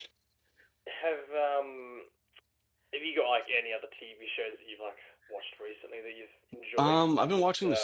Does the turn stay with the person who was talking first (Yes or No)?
No